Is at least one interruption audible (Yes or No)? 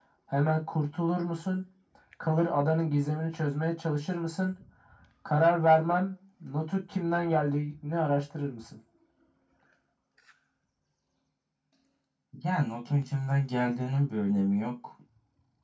No